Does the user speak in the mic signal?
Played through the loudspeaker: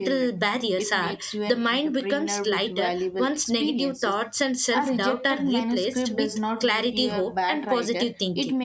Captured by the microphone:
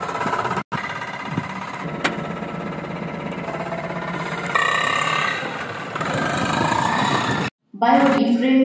Yes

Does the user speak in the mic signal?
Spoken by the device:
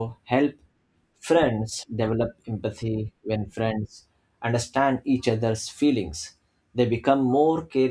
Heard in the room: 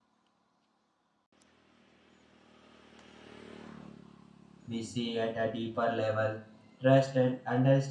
Yes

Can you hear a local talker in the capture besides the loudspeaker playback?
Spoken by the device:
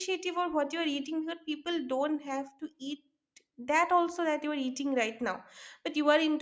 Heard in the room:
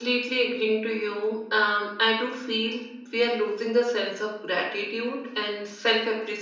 Yes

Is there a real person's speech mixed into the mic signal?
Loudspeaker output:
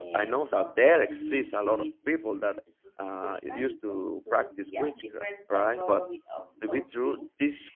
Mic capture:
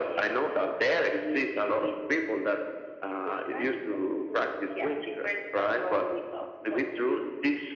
No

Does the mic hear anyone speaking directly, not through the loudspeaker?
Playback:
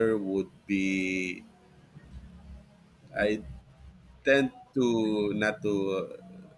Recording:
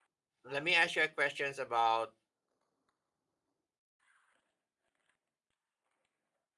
Yes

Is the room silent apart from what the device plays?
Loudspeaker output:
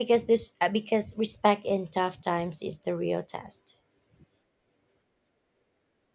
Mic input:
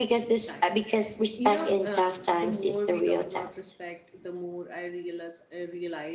No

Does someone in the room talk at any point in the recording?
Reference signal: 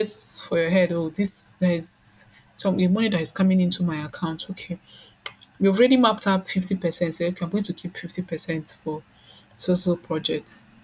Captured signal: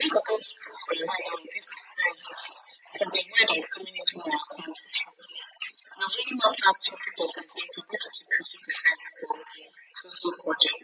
No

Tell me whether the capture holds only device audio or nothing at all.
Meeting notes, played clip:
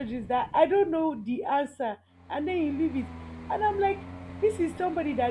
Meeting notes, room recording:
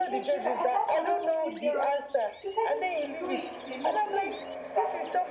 No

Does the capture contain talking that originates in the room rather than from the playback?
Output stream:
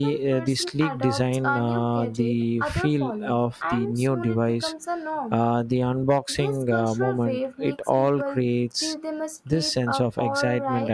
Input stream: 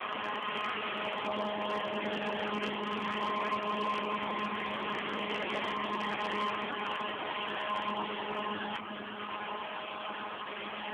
No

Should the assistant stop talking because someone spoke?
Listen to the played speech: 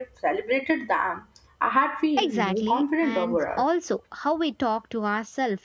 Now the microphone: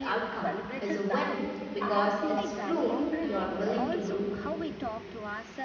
Yes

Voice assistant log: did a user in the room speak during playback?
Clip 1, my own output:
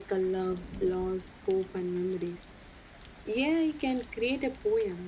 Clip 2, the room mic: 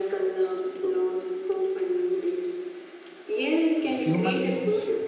Yes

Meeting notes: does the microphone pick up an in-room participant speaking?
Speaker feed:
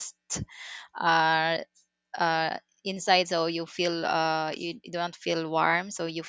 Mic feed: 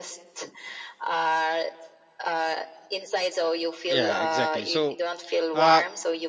Yes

